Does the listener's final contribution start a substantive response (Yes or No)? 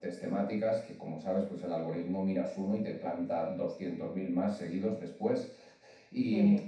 No